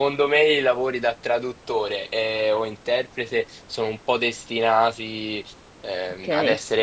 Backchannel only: Yes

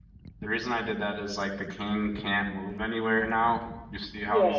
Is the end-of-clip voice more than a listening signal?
Yes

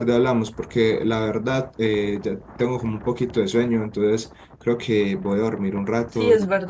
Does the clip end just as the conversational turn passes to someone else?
Yes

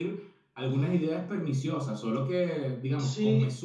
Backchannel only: No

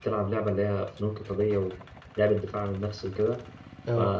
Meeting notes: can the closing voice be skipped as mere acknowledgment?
Yes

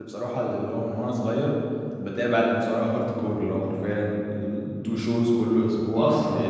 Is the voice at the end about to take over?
No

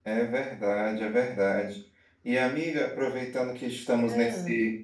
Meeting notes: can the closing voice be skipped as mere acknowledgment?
Yes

